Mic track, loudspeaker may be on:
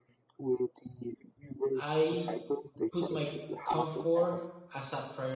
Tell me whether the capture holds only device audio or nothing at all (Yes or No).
No